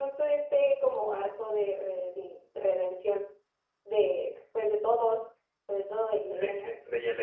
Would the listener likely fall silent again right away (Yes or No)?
No